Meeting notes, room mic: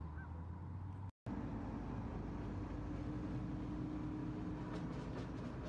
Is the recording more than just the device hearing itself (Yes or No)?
No